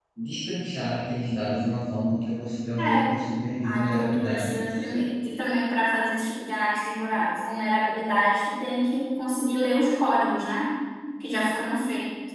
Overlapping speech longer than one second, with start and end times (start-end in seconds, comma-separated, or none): 3.6-5.0